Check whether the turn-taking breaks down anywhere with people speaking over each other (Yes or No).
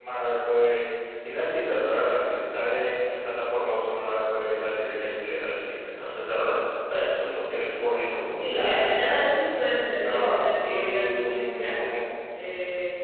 Yes